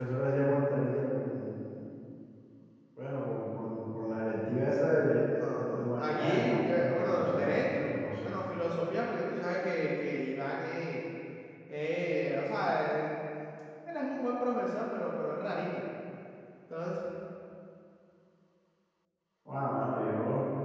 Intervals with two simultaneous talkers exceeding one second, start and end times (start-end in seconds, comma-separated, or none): 5.7-8.3